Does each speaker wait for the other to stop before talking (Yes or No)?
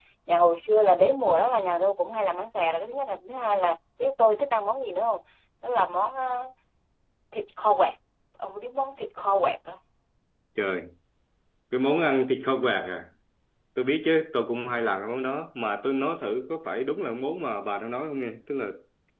Yes